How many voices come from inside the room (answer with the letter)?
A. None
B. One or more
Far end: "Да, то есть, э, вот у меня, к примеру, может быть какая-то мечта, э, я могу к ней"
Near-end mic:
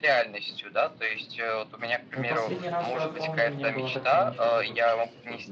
B